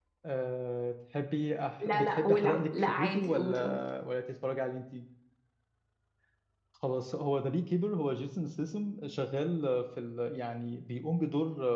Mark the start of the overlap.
2 s

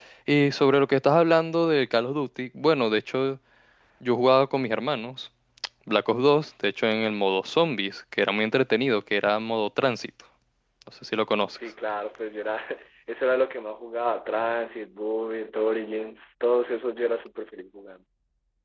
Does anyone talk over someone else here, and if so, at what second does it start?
none

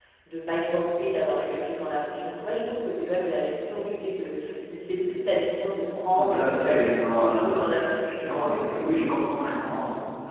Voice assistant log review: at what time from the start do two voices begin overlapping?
6 s

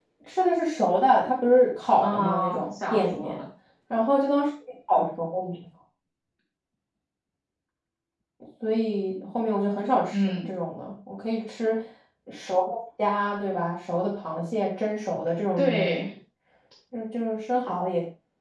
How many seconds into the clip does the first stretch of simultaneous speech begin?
2 s

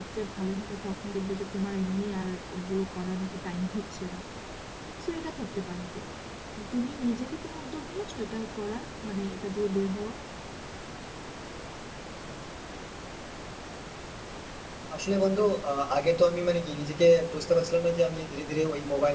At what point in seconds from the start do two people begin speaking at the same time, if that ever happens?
none

